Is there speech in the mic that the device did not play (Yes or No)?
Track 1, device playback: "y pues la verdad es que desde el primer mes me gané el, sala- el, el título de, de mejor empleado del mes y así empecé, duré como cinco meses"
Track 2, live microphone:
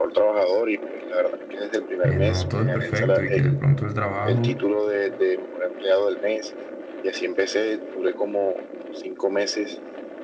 Yes